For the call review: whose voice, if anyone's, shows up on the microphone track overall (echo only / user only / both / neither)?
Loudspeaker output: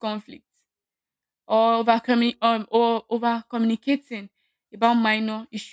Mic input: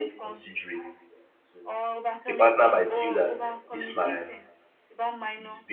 both